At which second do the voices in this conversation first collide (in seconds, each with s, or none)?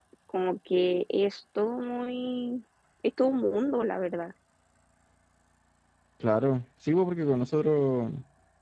none